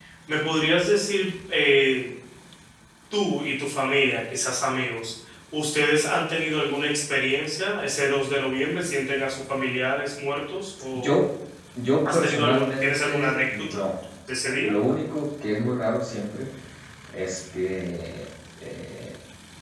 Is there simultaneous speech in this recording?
Yes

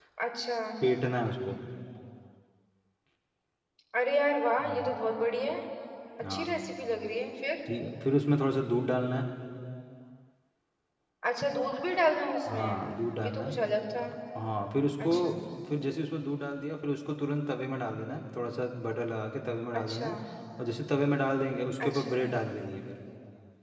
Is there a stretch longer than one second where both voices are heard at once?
No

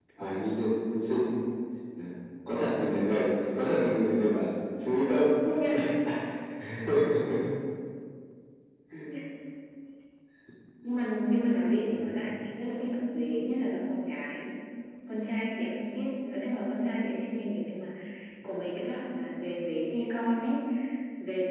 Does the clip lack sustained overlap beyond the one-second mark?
Yes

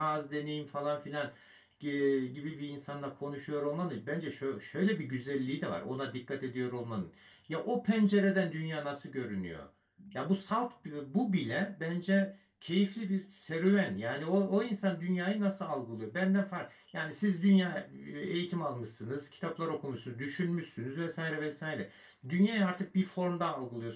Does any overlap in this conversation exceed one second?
No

